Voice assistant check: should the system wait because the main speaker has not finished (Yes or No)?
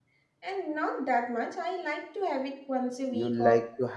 No